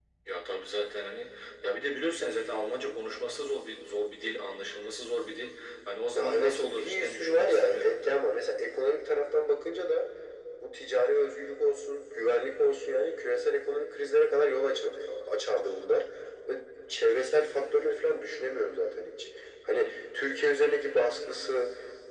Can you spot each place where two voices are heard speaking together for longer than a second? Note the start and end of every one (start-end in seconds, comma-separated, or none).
6.2-8.0